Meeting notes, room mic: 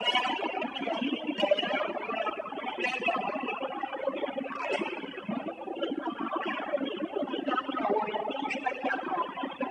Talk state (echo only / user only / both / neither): echo only